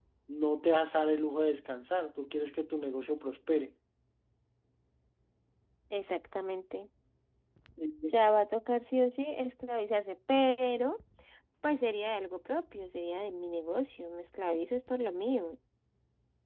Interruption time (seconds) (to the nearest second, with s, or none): none